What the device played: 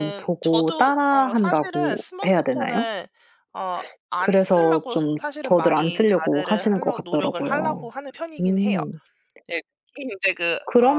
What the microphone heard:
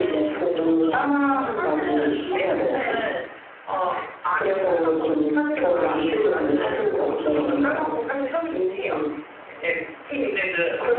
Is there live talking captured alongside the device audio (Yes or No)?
No